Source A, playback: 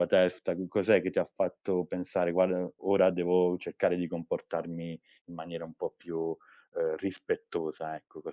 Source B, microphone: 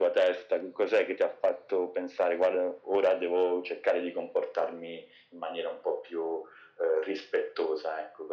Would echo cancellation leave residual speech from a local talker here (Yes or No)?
No